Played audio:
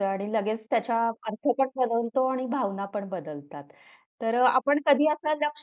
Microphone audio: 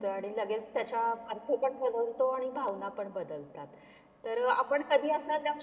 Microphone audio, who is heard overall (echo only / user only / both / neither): echo only